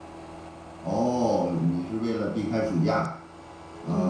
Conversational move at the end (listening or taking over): taking over